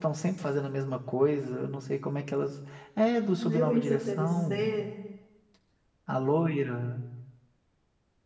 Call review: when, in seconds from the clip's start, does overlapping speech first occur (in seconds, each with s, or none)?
3.4 s